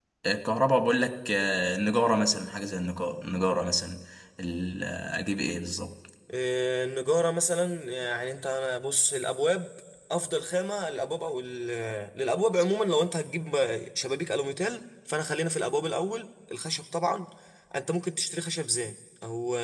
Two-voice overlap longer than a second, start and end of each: none

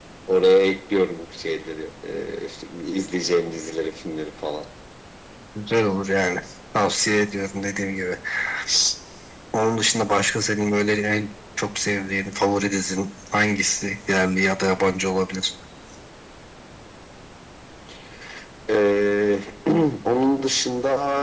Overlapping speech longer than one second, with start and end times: none

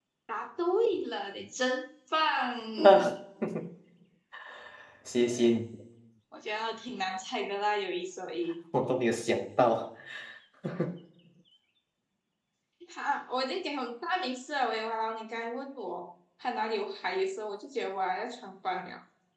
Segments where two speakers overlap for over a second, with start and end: none

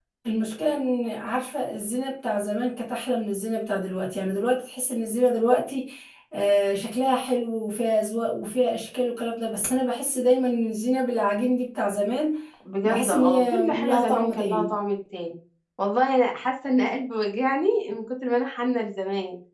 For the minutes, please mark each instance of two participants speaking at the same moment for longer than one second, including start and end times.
12.8-14.7

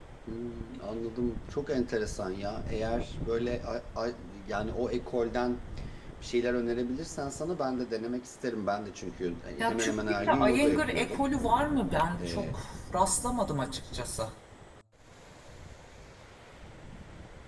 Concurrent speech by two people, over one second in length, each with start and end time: 9.6-11.2

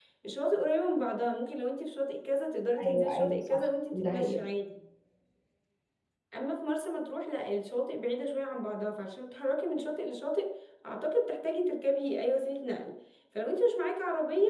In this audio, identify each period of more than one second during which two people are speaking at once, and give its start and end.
2.8-4.4

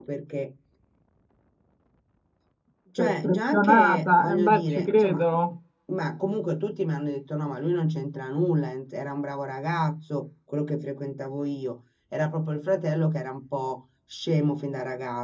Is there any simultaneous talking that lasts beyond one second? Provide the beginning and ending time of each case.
3.0-5.2

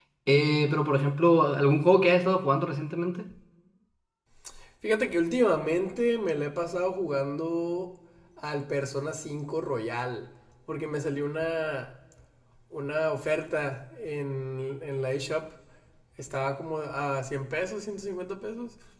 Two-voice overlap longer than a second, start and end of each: none

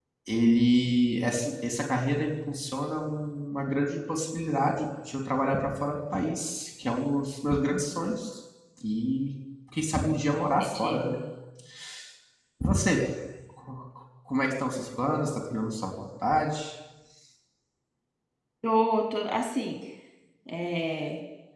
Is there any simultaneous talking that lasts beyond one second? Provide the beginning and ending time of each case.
none

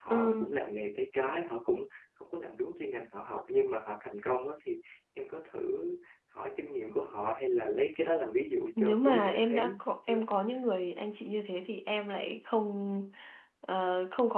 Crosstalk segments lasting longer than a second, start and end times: 8.8-10.2

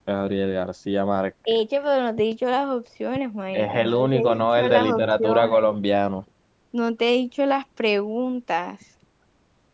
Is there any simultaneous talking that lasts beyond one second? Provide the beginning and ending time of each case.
3.5-5.7

